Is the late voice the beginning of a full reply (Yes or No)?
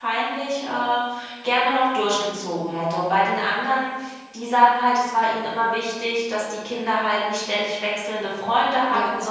No